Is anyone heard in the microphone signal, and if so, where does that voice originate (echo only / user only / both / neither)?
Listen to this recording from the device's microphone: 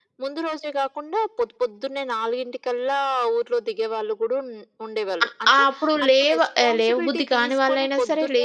both